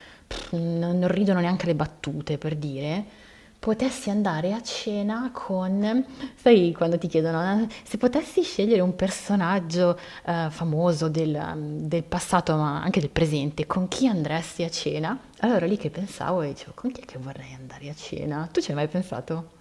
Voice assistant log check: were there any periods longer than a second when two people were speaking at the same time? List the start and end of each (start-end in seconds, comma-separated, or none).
none